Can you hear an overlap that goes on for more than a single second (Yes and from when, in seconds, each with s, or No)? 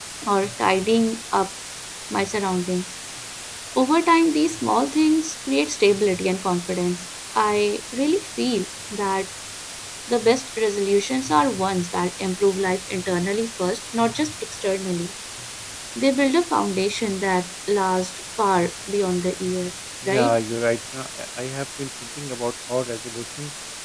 No